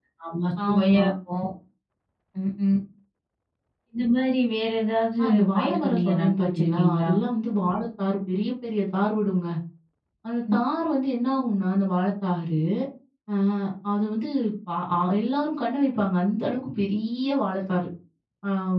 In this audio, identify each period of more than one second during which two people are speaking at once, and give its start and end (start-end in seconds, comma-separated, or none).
5.2-7.1